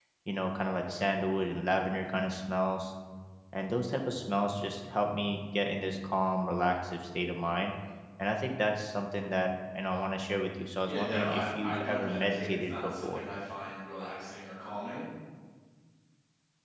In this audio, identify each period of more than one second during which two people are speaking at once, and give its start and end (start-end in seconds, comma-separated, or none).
10.9-13.2